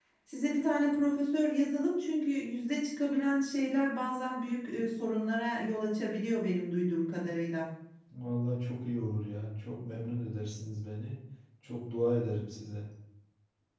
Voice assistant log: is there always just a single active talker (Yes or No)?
Yes